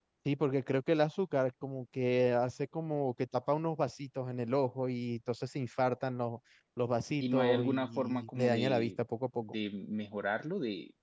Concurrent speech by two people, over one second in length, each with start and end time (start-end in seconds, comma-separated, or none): 7.2-9.0